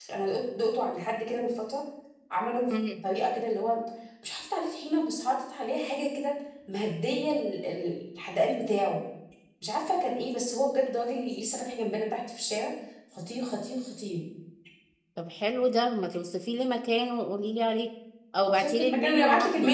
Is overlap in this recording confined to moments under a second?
No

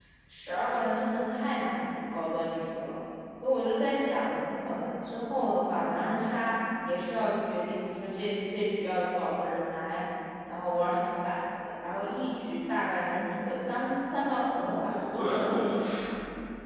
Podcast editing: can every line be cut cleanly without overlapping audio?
No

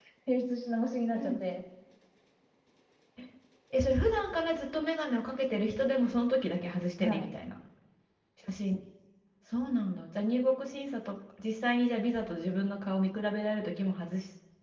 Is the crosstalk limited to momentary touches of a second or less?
Yes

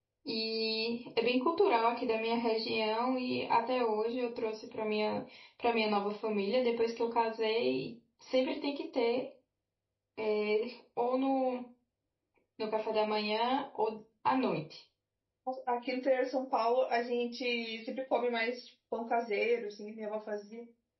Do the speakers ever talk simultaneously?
No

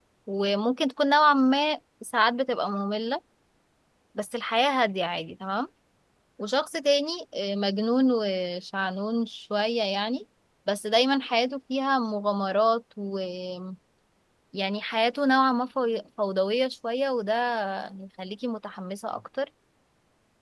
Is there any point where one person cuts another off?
No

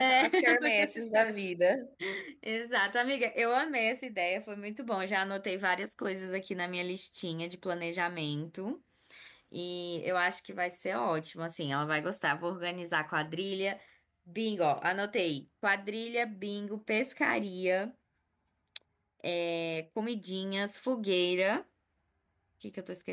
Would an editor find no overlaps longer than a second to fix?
No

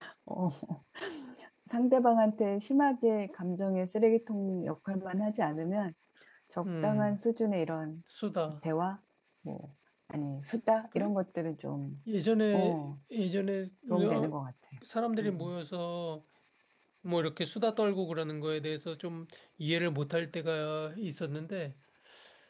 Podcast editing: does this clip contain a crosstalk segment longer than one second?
No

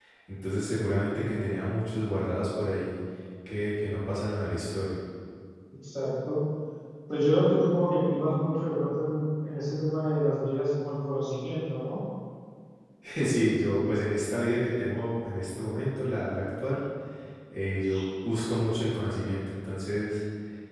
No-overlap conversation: Yes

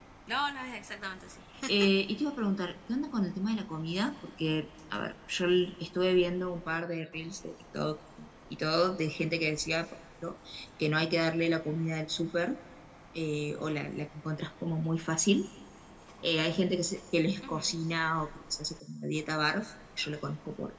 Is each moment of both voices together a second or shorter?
Yes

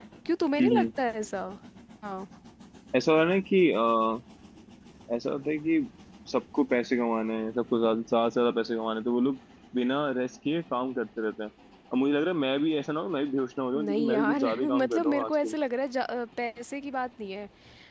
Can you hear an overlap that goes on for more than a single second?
Yes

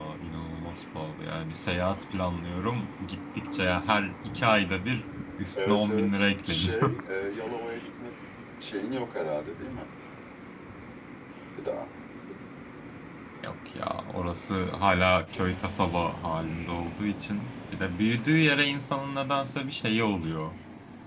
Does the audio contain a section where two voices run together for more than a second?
Yes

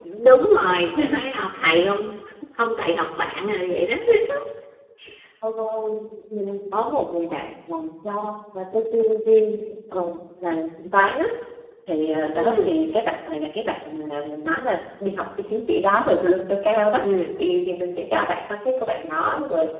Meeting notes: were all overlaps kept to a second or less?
Yes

